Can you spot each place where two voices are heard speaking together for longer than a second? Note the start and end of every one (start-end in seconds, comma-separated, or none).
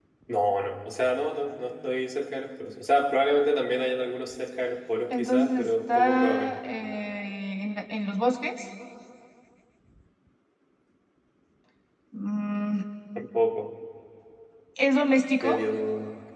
5.1-6.6